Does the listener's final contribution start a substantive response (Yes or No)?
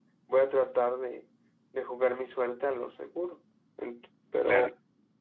No